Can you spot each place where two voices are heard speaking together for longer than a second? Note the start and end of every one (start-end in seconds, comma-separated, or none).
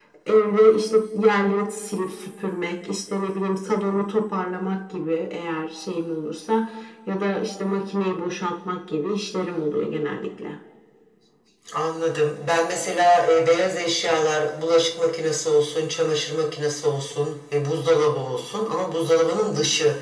none